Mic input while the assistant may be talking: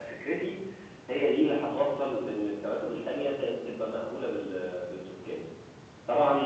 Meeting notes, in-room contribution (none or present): present